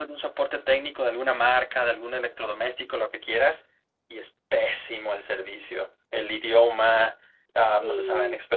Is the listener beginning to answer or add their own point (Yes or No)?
No